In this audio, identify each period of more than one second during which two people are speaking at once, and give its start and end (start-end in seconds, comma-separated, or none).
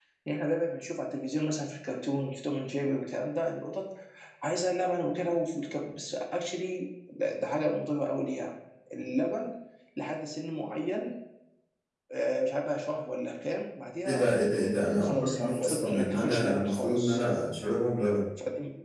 15.0-17.2